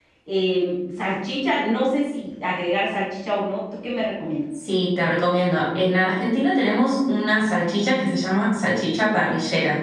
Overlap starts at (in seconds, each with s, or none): none